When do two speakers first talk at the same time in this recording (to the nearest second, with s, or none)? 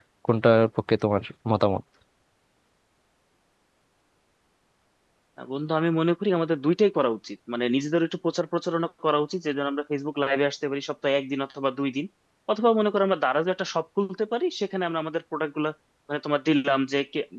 none